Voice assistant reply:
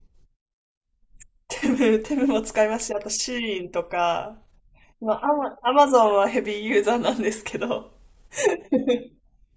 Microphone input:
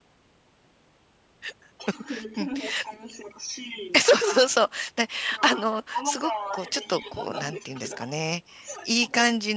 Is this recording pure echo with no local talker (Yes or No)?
No